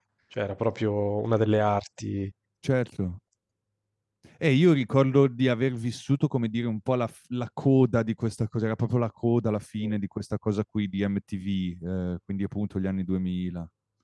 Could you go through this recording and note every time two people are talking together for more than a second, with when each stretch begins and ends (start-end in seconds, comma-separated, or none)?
none